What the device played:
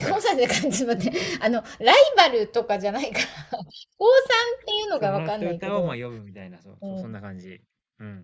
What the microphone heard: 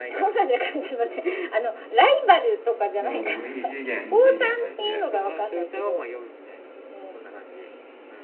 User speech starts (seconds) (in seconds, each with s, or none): 3.0 s